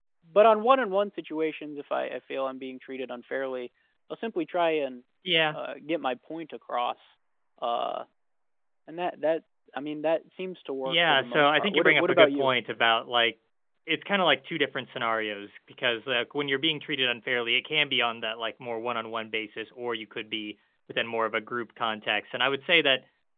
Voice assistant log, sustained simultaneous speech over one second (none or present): present